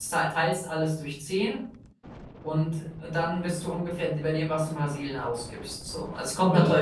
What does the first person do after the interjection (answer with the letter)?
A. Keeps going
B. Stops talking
A